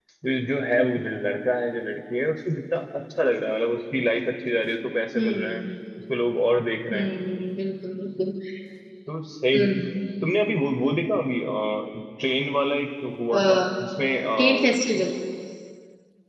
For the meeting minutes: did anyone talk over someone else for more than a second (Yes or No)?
No